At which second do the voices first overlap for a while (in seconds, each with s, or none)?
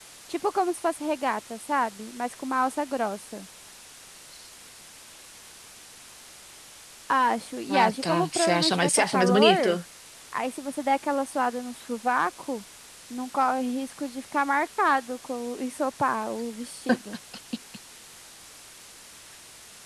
7.7 s